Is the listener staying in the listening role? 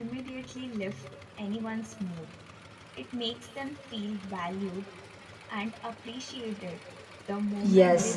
No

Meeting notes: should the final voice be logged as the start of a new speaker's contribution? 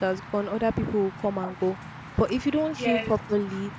No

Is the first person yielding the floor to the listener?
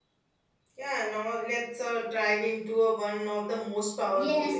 Yes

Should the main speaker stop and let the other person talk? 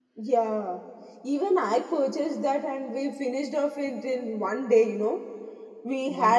No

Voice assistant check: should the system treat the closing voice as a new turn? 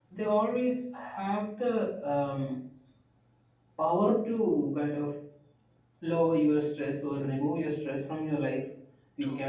No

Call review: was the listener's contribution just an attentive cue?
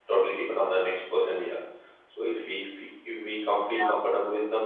Yes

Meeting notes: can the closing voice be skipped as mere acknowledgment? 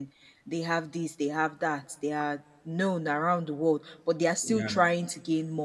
Yes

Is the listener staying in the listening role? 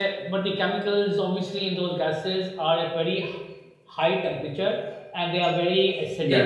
Yes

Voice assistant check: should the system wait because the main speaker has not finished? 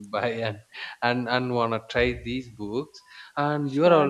Yes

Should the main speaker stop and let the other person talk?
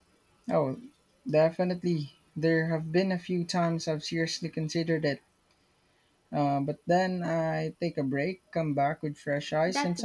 Yes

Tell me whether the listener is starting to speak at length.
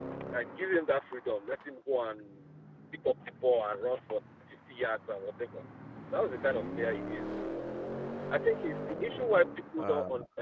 No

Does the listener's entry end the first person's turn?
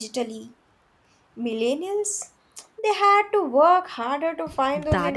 Yes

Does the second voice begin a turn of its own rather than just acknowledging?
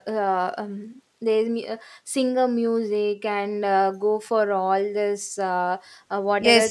Yes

